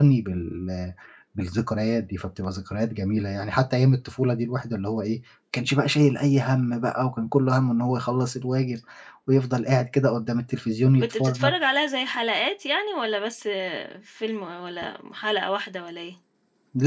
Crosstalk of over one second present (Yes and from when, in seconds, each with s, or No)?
No